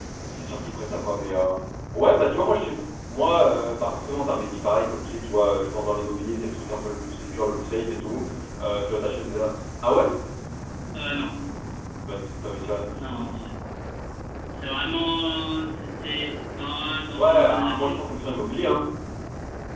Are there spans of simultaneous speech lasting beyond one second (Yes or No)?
Yes